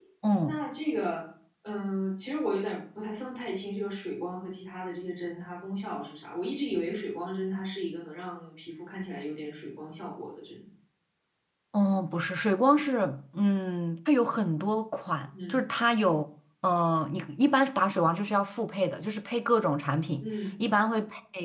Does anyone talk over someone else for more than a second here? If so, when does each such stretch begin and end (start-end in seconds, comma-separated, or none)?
none